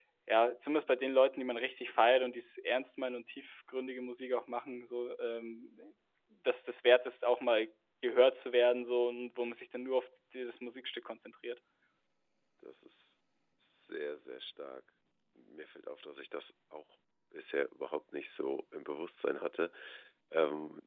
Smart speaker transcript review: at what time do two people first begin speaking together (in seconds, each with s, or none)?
none